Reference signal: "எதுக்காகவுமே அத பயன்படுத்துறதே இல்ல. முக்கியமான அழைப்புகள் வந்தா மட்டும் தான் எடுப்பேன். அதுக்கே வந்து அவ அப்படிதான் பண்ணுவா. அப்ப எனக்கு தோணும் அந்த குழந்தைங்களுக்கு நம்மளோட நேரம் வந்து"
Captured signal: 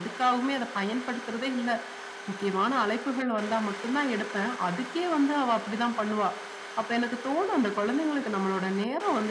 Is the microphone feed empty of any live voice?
Yes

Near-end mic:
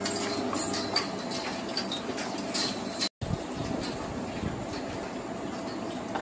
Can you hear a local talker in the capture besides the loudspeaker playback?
No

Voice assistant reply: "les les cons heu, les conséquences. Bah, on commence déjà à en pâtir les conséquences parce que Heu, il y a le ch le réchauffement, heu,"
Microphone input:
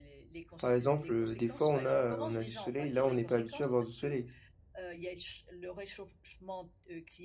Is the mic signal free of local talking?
No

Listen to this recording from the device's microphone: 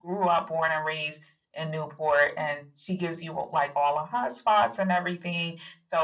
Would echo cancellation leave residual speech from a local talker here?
No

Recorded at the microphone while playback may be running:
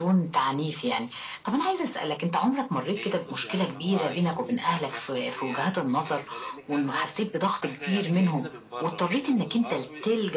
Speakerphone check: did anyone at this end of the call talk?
Yes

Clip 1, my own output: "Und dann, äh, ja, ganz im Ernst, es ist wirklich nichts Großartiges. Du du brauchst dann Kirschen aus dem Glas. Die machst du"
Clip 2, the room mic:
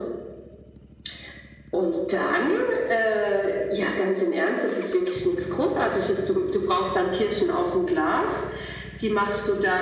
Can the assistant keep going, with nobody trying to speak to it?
Yes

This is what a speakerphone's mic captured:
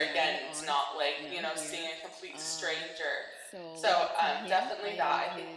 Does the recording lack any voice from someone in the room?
No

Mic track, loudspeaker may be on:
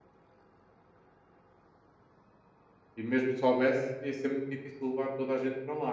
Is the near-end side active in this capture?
Yes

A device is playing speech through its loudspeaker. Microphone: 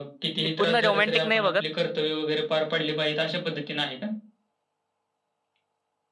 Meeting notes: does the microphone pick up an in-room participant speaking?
Yes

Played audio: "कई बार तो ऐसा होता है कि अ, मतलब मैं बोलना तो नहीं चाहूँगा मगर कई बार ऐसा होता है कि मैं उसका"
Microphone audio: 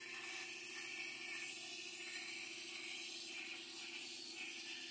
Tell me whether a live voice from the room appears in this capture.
No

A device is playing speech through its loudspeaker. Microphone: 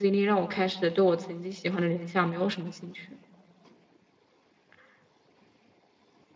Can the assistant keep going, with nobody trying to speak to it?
No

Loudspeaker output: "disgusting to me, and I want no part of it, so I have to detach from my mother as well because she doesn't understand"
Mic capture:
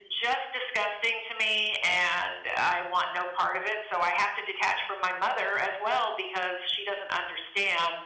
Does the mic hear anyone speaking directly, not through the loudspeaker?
No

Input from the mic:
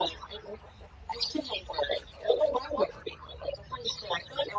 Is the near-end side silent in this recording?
Yes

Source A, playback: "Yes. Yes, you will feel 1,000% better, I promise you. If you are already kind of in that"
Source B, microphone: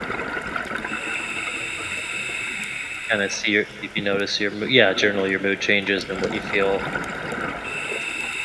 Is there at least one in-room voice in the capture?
Yes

